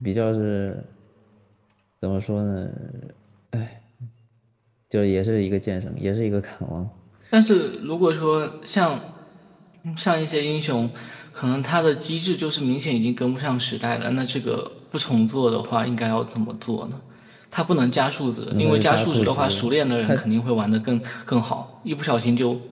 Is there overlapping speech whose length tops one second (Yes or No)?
Yes